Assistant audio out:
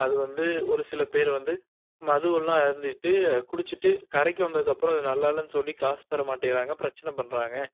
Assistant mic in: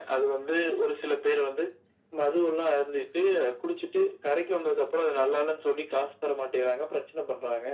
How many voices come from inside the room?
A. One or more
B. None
B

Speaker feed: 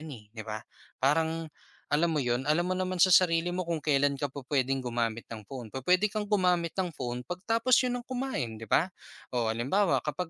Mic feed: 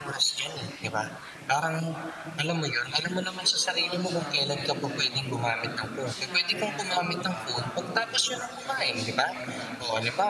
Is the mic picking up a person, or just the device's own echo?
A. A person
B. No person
A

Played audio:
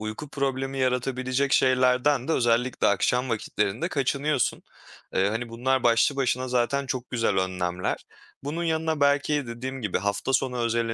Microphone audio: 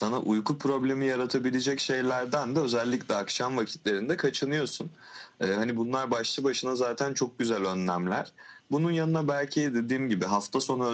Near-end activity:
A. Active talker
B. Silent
B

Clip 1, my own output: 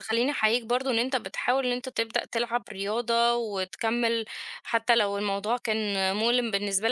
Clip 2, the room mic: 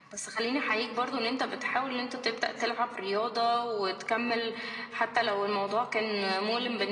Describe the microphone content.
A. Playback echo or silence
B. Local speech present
A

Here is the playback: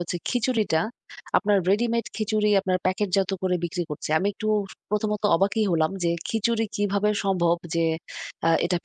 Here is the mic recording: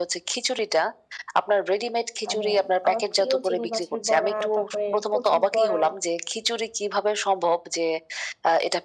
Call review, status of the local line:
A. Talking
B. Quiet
A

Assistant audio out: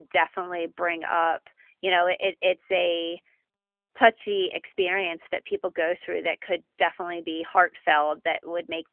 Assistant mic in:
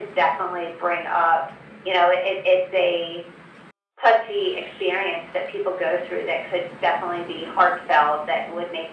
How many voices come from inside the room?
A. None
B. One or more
A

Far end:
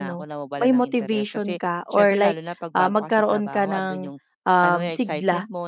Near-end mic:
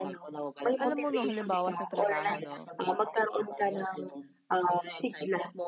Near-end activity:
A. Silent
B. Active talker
B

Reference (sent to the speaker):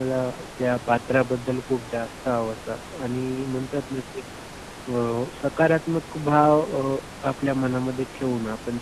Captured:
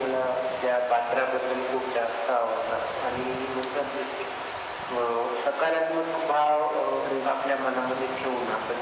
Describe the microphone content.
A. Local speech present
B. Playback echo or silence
A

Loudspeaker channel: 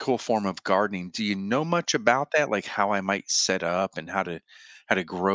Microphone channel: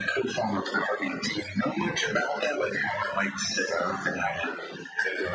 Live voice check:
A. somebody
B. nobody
B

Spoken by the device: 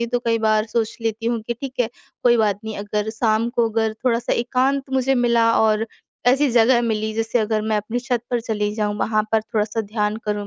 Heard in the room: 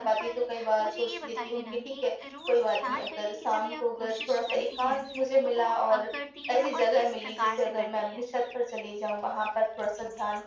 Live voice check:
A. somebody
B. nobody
A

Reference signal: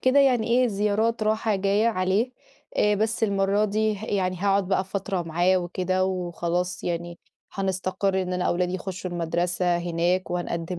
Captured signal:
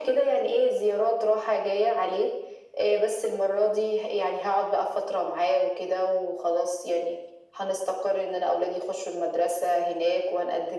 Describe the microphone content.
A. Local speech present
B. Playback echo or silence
B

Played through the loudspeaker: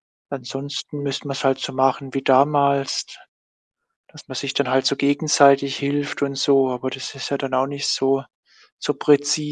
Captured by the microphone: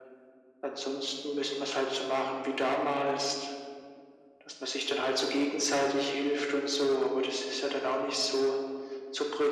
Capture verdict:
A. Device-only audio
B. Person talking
A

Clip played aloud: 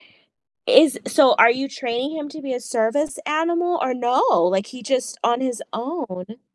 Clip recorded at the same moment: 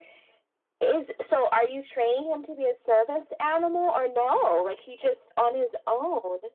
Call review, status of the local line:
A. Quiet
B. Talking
A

